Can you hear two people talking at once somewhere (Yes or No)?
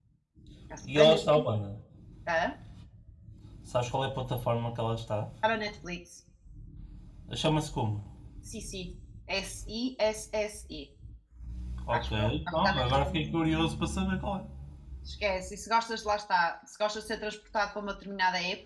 Yes